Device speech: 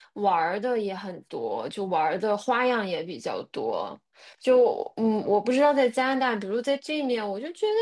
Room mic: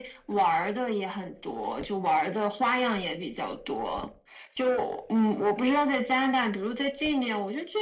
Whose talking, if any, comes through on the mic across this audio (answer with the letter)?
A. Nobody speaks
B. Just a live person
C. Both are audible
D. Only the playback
D